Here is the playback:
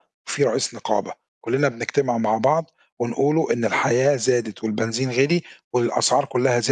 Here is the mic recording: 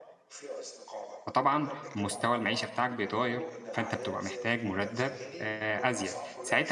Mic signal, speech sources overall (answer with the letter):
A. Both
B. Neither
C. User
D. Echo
A